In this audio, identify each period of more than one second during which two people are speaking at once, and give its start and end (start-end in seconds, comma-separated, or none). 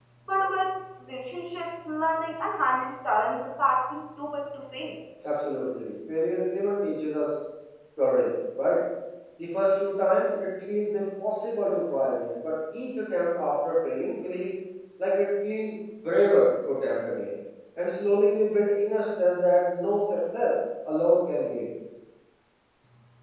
none